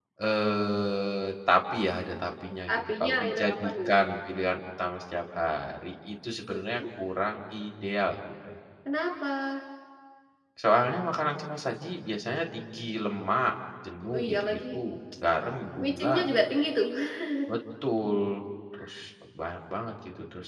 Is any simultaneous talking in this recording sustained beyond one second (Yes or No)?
Yes